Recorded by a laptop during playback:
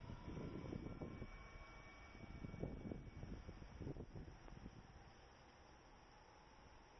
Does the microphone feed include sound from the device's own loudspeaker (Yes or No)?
No